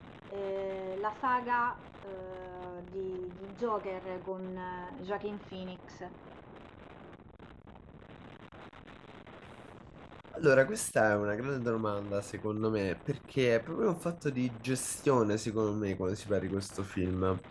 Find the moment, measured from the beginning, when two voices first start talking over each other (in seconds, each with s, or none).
none